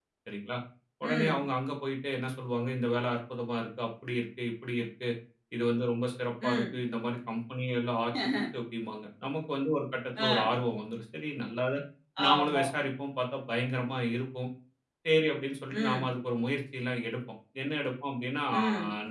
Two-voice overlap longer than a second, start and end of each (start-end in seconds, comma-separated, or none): none